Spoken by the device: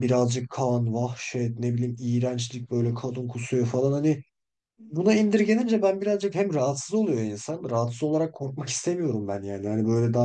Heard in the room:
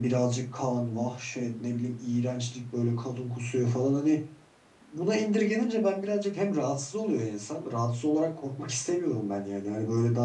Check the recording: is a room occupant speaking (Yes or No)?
No